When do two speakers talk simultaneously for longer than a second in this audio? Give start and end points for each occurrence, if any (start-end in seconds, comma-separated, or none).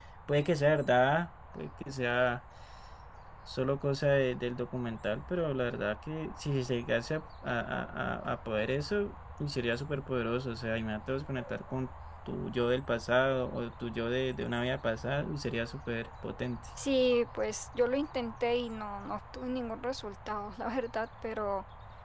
none